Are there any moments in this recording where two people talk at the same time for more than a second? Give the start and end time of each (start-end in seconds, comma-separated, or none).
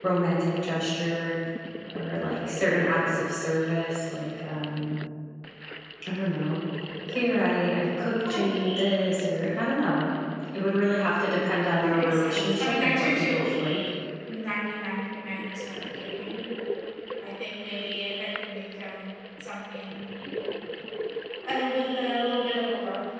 11.8-13.4